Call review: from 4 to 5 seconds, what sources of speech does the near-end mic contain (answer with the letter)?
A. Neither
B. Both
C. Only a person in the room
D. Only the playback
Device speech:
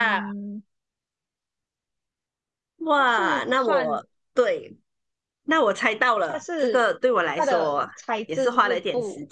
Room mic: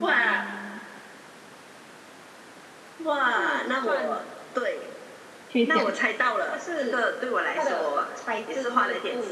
D